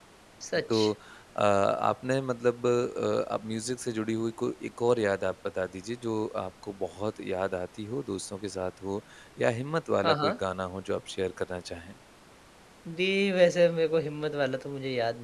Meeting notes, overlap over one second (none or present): none